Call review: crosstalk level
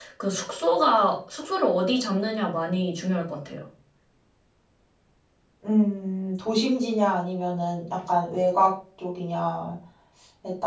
none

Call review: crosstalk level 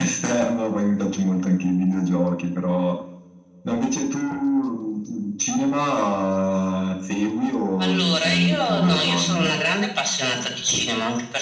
present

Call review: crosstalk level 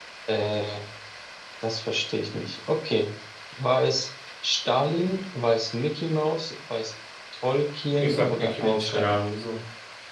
present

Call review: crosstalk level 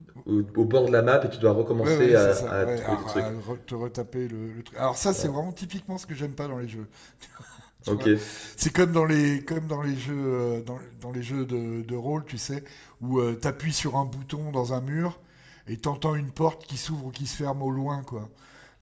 present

